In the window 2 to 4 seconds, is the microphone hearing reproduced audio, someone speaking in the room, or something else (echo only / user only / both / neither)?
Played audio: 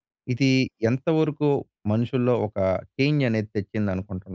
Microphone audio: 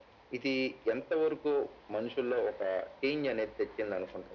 echo only